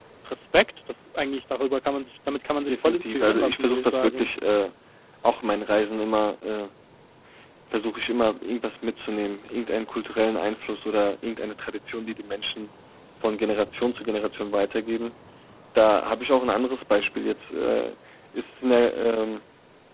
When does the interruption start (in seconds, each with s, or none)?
2.7 s